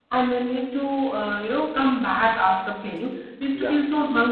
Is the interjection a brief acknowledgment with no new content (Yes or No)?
Yes